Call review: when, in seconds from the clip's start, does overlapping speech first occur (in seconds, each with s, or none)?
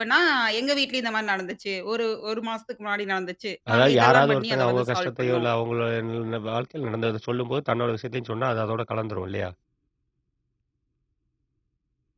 3.7 s